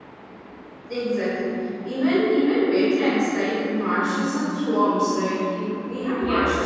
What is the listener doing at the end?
listening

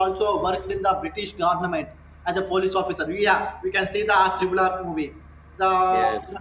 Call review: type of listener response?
listening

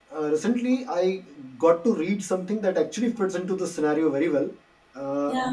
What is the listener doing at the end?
listening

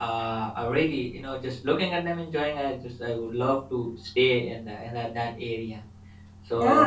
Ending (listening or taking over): taking over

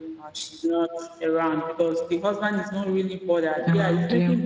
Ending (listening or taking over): listening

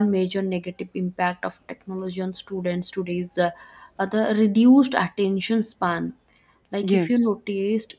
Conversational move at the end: listening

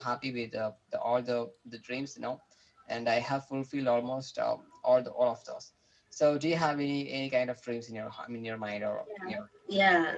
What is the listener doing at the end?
taking over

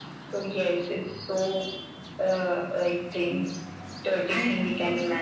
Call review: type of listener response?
taking over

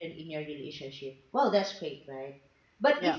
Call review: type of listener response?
listening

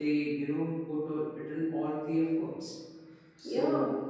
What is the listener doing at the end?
listening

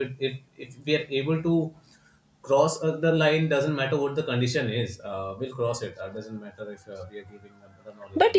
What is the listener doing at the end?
taking over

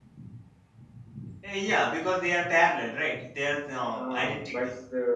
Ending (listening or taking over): taking over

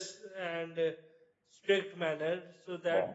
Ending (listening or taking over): listening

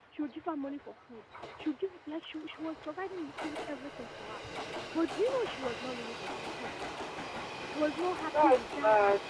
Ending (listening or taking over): listening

